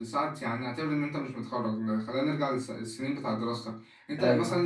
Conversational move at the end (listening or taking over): listening